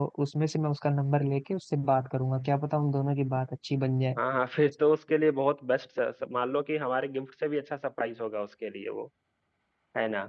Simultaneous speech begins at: none

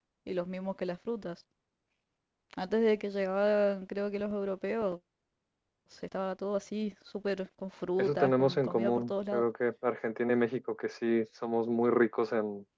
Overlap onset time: 8 s

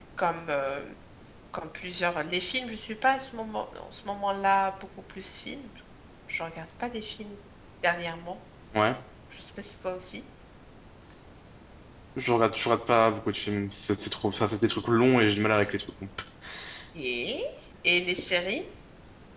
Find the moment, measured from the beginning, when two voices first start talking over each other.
none

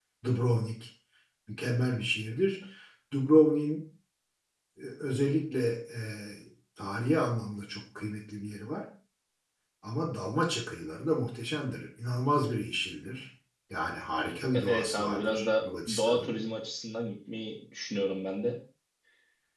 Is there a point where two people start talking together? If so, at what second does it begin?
15 s

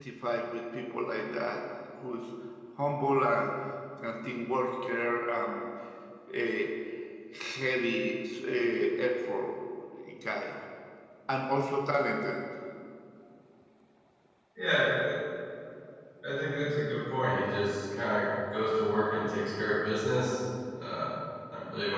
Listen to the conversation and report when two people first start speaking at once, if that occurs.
none

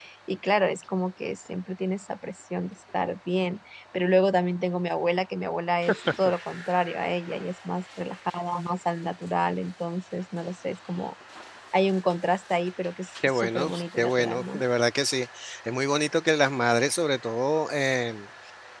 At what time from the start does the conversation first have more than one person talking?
13 s

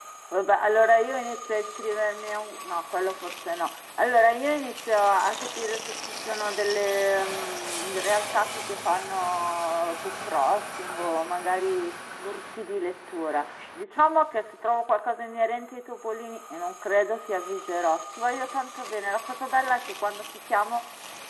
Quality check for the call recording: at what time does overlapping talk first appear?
none

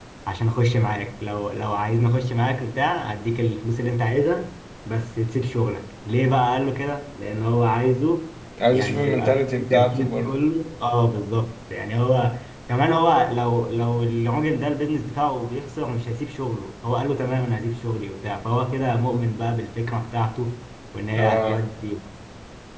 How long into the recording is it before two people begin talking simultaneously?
9 s

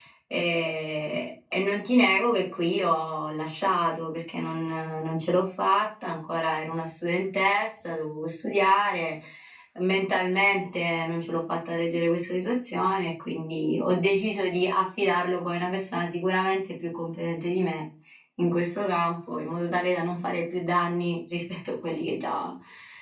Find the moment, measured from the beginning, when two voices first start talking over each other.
none

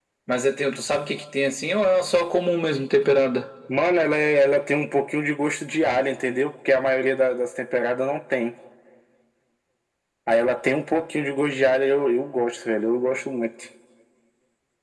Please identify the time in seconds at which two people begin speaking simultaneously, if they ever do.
none

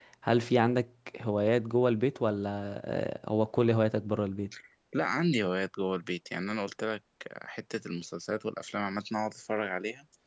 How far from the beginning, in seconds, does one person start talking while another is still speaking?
none

